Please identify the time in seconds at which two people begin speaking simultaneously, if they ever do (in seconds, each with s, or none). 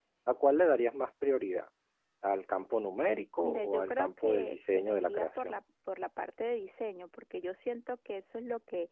3.4 s